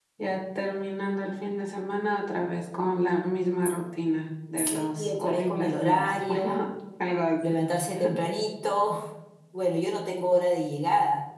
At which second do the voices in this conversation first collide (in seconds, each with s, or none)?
4.6 s